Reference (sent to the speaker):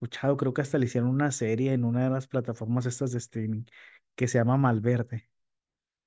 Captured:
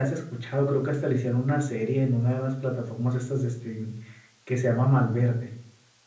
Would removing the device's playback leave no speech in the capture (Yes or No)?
Yes